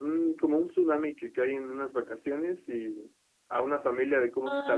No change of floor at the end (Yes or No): No